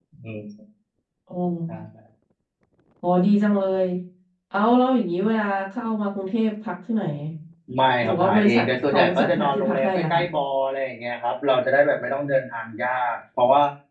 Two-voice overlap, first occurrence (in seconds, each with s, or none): 8.0 s